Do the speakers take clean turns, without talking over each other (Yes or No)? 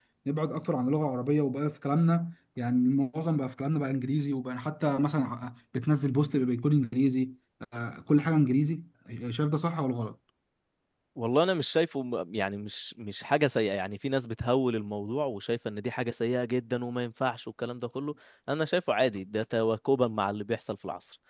Yes